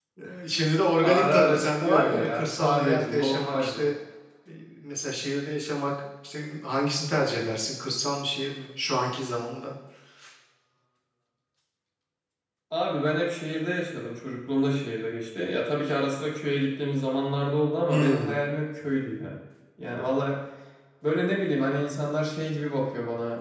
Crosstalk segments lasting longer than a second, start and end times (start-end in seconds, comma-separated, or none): 1.0-3.9